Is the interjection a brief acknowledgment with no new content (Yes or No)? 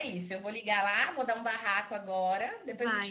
No